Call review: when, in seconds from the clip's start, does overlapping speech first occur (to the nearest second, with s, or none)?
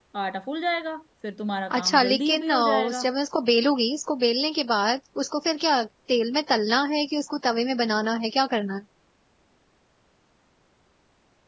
2 s